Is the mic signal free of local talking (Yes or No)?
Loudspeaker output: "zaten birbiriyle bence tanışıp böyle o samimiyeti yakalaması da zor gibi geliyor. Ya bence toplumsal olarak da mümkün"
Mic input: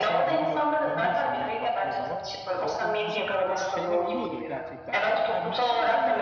No